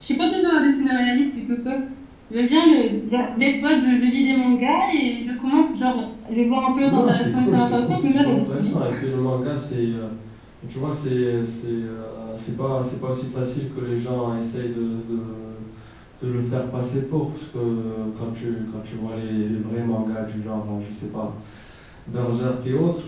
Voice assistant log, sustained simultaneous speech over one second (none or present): present